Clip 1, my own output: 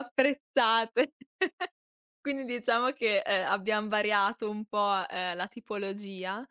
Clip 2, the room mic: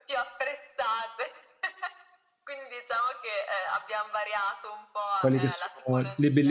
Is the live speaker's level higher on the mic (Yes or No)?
Yes